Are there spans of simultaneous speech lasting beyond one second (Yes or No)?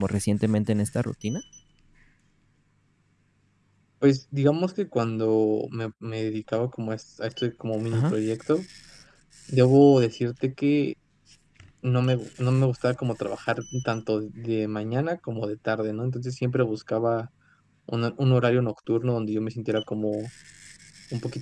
No